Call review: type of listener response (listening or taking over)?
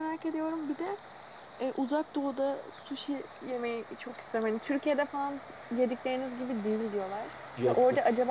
listening